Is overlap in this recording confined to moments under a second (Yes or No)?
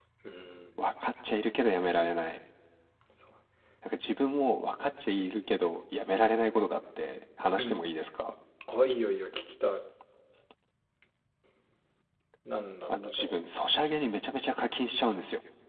Yes